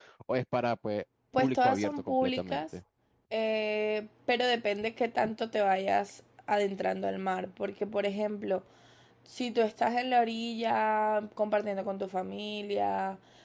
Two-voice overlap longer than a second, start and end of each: 1.4-2.6

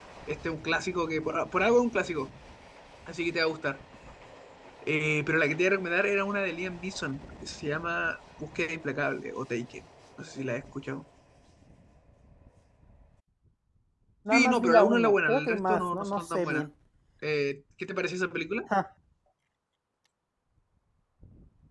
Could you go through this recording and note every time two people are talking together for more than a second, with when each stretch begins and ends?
14.3-16.6

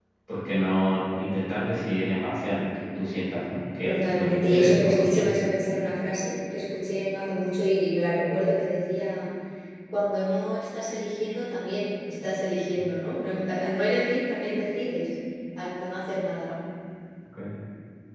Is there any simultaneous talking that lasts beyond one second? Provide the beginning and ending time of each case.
3.8-5.3

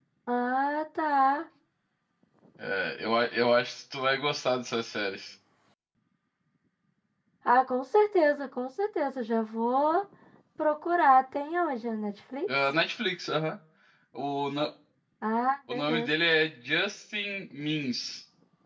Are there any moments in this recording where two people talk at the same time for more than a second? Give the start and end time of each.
none

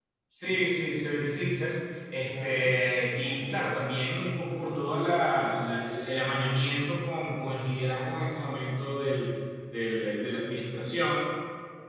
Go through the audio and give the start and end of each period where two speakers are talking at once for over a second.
2.3-3.7

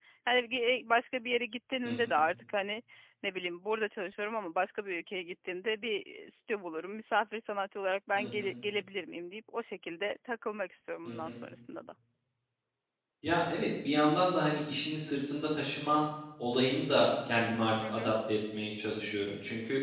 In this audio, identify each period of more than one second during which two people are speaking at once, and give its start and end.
none

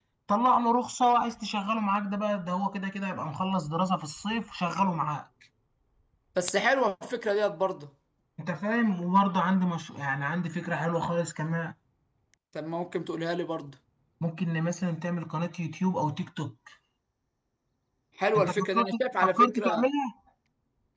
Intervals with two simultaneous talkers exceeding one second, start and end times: 18.4-19.9

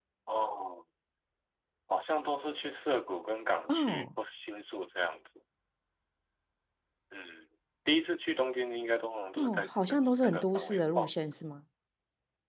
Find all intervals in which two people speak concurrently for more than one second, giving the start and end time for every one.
9.4-11.1

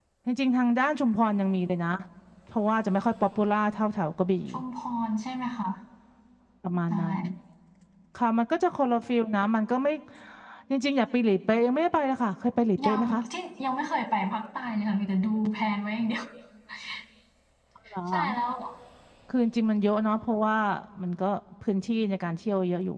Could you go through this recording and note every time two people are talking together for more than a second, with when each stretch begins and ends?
none

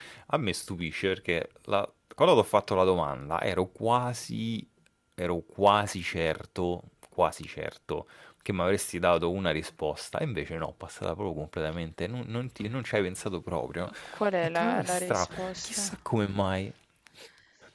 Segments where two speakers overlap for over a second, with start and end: 14.6-15.9

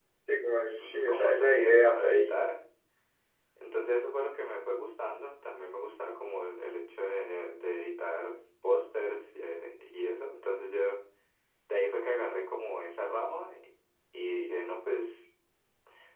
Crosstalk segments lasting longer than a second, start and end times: 0.8-2.4

